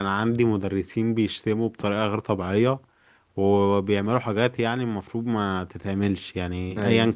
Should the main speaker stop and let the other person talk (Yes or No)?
No